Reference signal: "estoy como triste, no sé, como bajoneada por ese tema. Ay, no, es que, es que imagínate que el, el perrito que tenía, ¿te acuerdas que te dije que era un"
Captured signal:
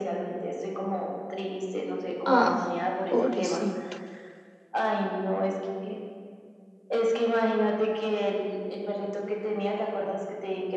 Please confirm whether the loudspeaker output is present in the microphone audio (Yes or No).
Yes